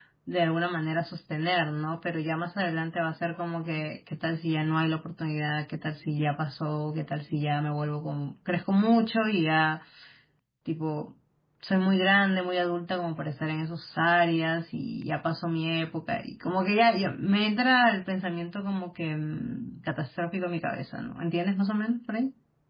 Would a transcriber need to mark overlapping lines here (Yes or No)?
No